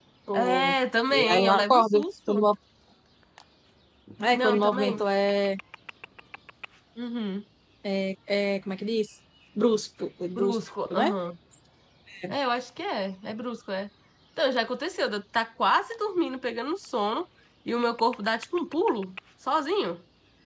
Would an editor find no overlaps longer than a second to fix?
No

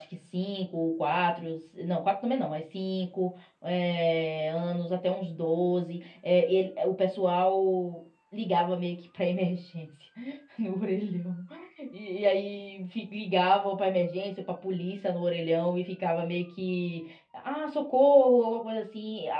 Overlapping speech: No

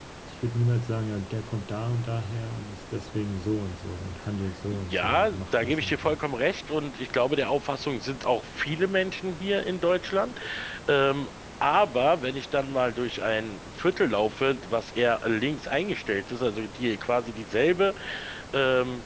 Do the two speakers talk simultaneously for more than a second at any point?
Yes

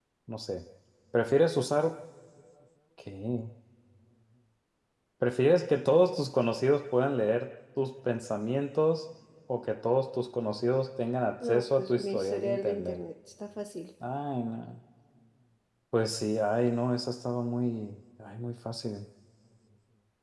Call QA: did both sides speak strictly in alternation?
No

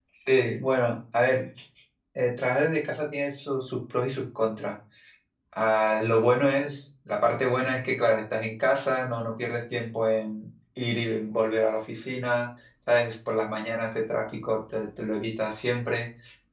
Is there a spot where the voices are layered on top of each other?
No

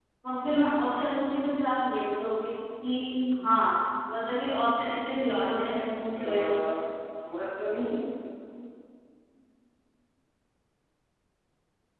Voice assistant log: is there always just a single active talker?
No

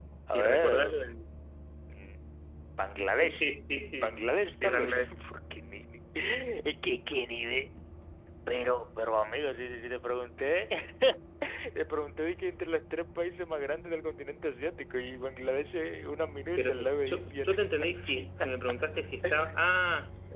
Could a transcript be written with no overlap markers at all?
No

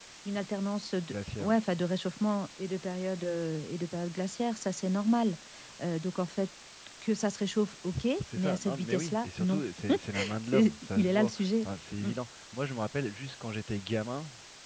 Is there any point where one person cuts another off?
Yes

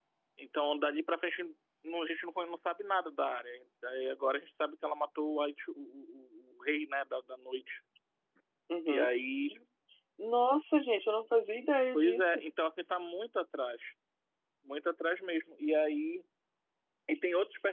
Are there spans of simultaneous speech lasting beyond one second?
No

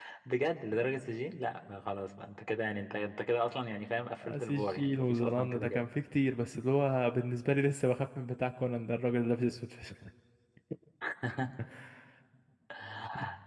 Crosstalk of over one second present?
Yes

